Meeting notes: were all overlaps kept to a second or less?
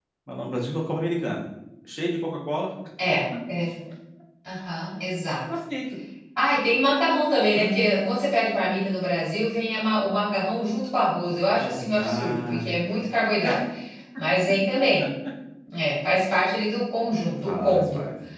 No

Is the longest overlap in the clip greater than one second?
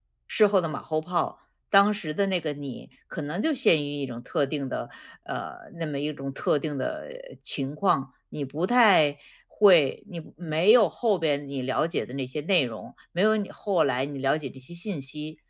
No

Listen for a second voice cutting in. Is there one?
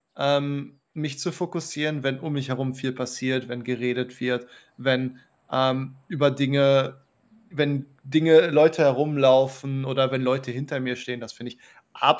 No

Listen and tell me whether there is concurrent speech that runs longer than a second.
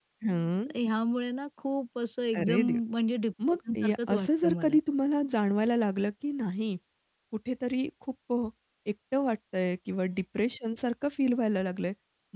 Yes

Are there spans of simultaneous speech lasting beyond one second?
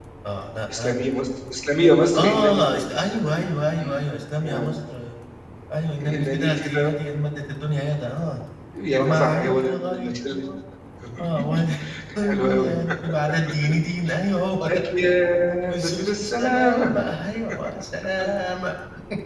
Yes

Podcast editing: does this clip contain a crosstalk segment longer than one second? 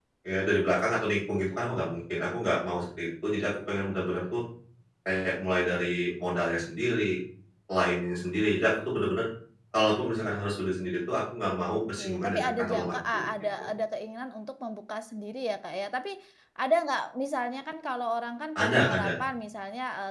Yes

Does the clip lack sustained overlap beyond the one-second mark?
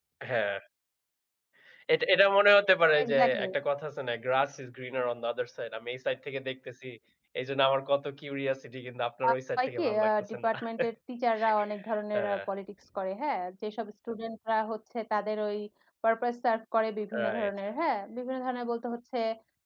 No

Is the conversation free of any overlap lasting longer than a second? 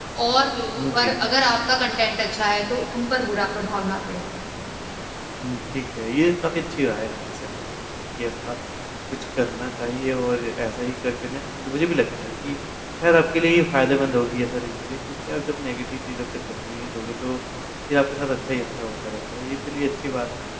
Yes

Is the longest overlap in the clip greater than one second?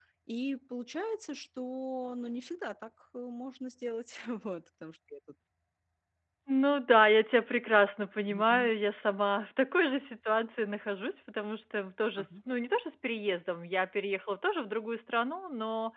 No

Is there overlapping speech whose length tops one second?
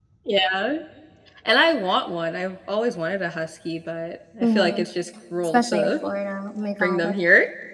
No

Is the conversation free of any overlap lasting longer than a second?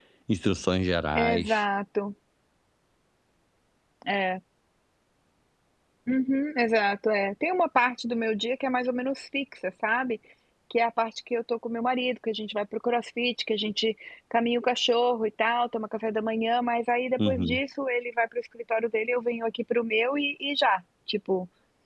Yes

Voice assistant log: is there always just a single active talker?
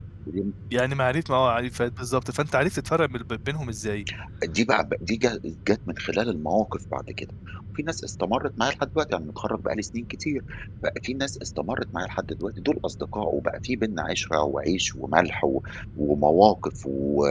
Yes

